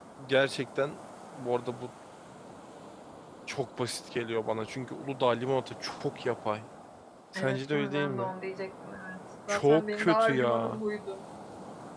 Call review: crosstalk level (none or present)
present